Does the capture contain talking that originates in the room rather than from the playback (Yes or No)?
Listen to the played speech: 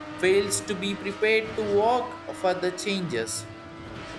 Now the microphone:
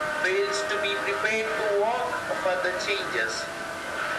No